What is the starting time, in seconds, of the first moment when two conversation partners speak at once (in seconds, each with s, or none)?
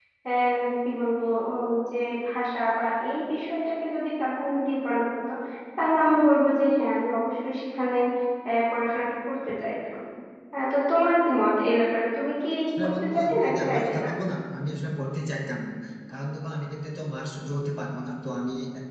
12.7 s